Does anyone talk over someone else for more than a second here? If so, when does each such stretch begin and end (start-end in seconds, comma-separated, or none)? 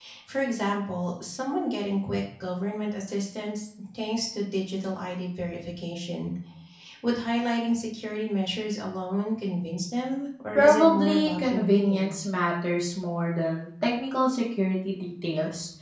10.5-12.2